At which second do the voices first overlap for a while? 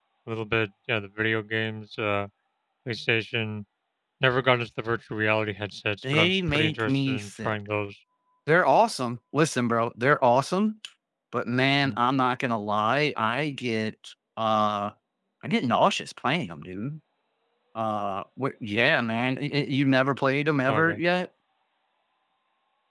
6.1 s

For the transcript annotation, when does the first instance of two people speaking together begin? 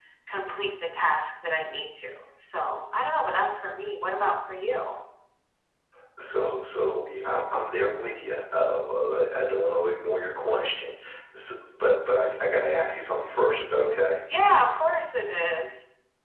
none

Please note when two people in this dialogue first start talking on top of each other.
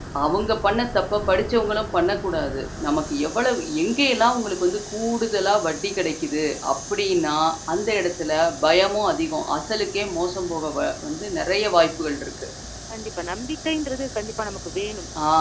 none

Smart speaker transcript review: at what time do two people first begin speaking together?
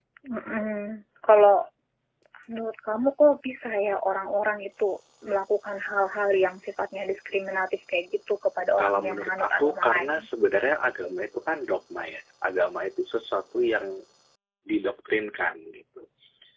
8.8 s

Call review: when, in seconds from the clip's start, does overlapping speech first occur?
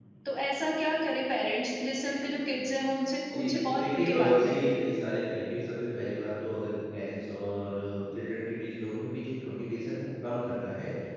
3.3 s

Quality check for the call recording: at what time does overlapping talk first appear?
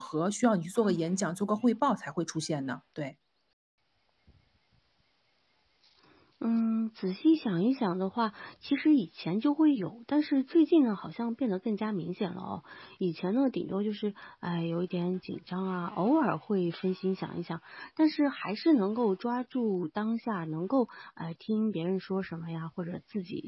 none

